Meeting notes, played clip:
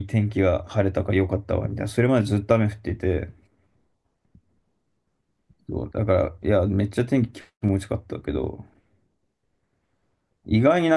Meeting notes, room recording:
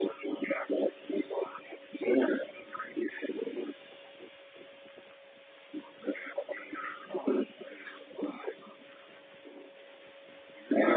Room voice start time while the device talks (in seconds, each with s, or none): none